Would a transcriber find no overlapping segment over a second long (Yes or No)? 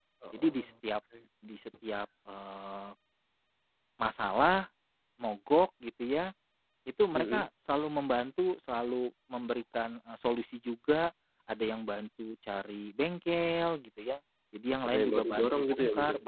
No